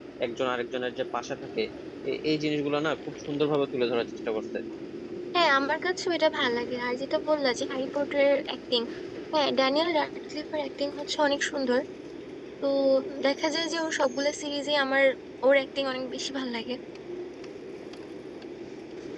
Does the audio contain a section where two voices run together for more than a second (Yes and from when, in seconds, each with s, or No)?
No